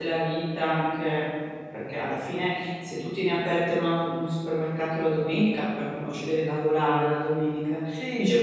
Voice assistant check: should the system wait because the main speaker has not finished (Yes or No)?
Yes